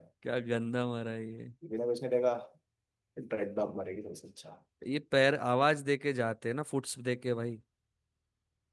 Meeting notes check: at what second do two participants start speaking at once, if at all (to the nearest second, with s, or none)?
none